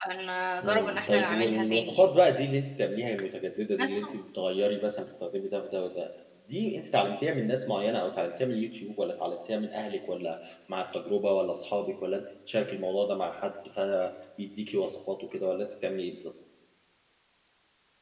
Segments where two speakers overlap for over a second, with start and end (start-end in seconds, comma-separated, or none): 0.6-2.1